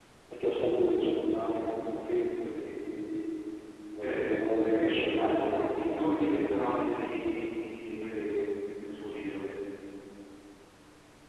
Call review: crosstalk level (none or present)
present